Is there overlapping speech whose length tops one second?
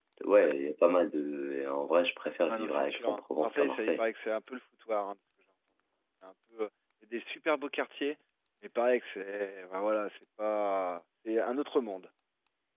Yes, from 2.5 s

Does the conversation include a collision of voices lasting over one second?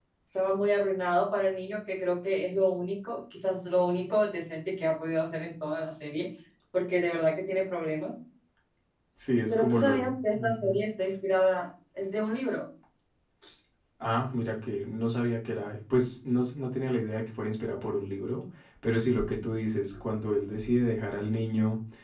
Yes, from 9.5 s

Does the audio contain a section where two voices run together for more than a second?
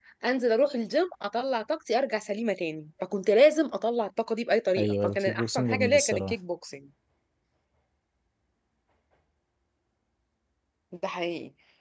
Yes, from 4.8 s

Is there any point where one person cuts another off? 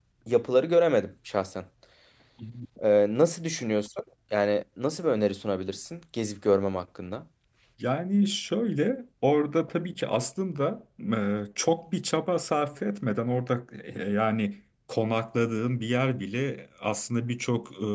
No

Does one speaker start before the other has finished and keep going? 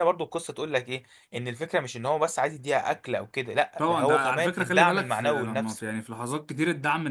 Yes, from 3.8 s

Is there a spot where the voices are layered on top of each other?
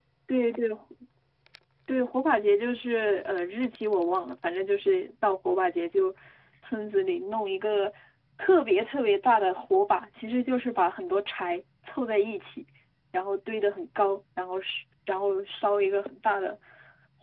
No

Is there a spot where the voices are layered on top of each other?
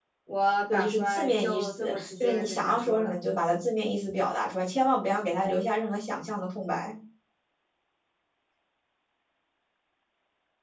Yes, from 0.7 s

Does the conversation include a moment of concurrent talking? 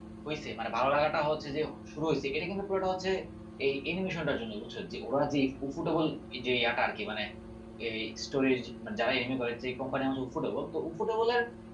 No

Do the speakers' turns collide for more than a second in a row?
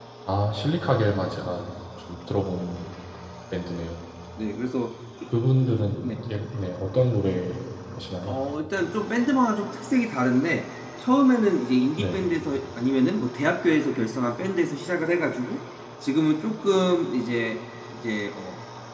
No

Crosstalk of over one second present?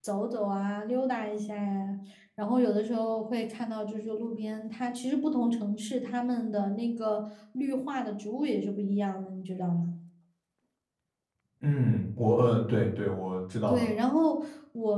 No

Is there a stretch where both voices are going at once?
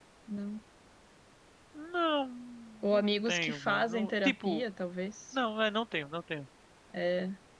Yes, from 2.9 s

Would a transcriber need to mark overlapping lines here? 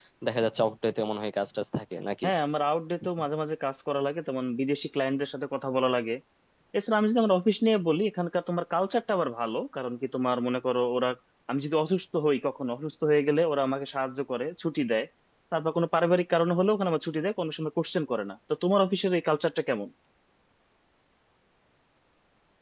No

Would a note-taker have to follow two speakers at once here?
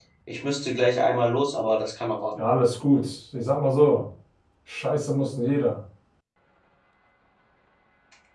No

